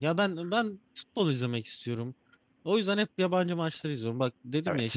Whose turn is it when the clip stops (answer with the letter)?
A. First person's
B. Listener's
A